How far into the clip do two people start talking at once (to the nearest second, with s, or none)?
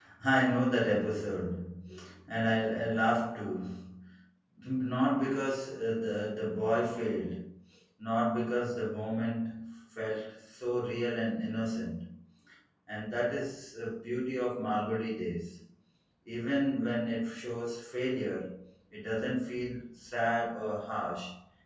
none